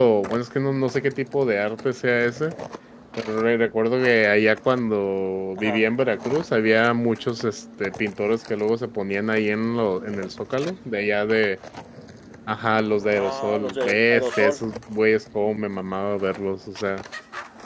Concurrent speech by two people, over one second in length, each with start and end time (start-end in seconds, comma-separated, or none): 13.1-14.6